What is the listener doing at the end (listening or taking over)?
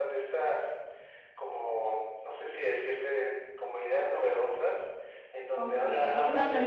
taking over